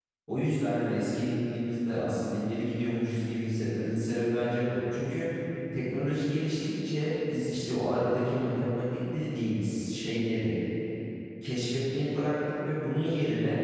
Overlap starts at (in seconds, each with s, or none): none